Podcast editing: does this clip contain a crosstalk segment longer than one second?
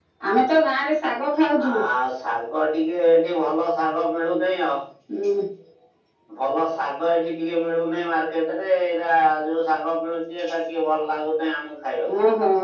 No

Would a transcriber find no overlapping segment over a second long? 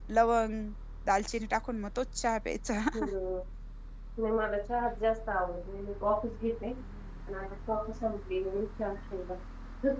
Yes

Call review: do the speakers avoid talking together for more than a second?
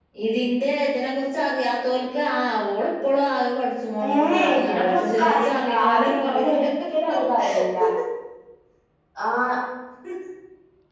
No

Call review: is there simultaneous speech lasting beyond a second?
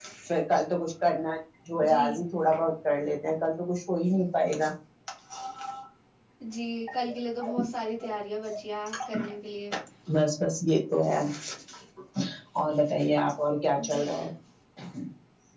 No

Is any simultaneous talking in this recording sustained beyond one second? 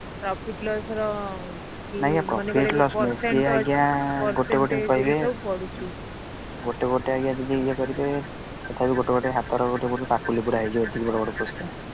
Yes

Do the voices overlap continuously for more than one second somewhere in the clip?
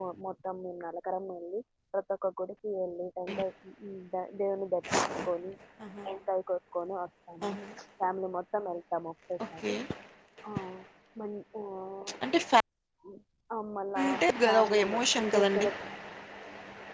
Yes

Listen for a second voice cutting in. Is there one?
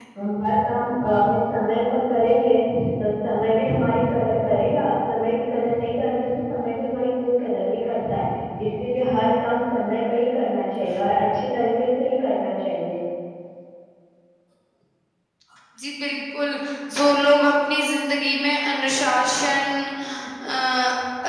No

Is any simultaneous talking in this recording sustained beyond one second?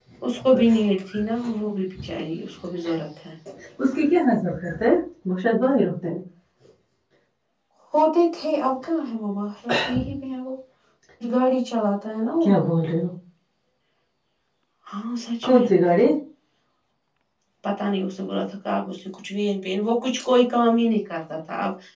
No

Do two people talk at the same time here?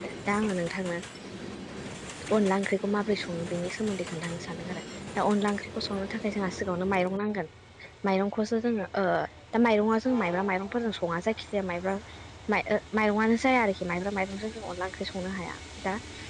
No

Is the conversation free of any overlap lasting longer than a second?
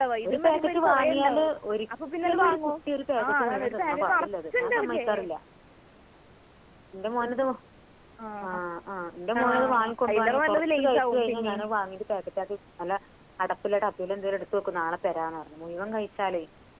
No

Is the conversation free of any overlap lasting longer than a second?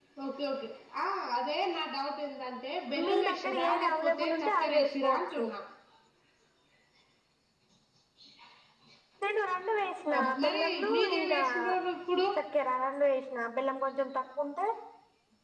No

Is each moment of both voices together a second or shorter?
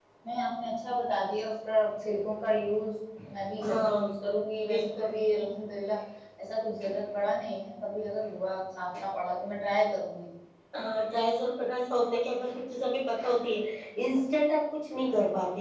Yes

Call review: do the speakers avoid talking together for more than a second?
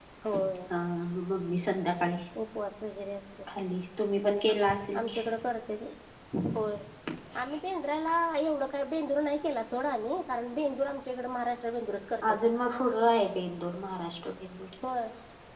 Yes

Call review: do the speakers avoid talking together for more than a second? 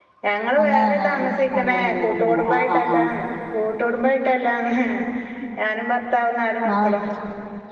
No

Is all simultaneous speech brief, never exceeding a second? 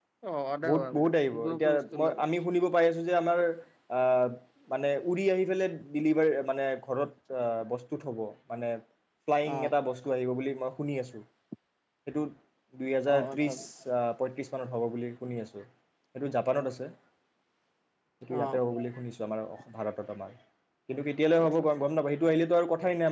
No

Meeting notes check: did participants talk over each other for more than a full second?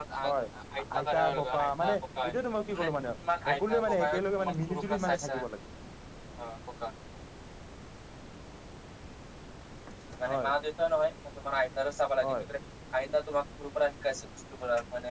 Yes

